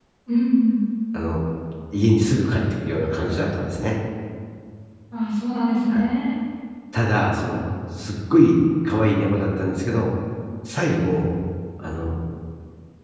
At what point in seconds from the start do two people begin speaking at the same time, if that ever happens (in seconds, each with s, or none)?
none